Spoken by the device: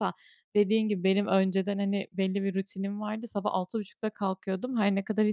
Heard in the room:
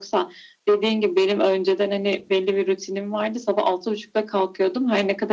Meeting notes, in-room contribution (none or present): none